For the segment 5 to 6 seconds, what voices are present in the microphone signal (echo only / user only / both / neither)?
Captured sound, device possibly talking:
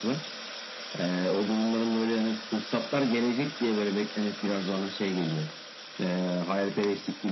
echo only